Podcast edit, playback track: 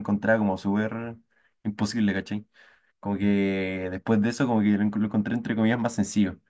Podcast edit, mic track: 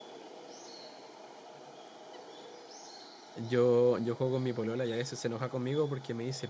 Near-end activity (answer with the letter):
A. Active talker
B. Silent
A